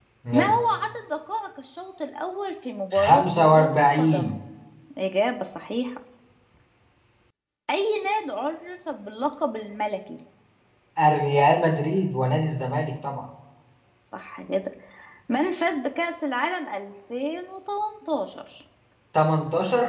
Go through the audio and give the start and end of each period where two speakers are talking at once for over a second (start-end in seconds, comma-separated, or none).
2.9-4.3